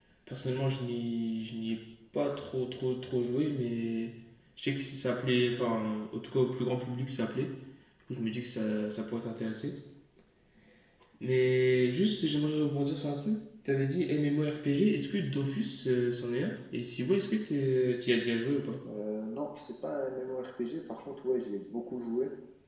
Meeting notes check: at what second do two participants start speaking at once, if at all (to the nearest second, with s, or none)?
none